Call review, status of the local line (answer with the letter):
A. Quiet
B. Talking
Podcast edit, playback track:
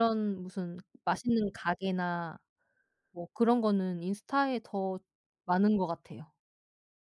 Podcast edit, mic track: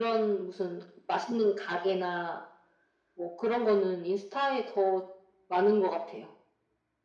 A